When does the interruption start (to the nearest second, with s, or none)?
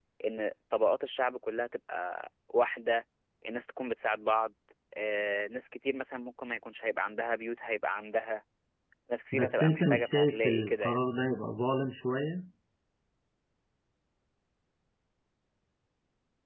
9 s